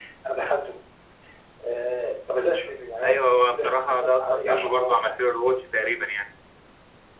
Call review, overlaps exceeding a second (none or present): present